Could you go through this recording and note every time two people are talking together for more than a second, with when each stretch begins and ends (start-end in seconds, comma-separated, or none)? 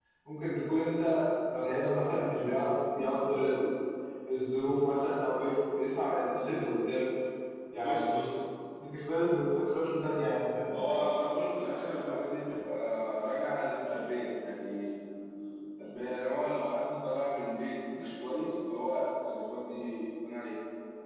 none